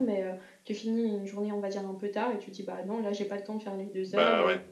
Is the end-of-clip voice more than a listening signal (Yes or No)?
No